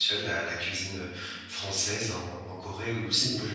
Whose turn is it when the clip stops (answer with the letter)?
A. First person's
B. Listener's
B